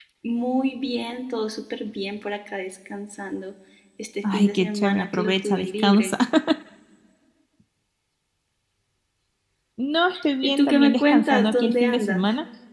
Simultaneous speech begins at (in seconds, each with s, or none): 4.2 s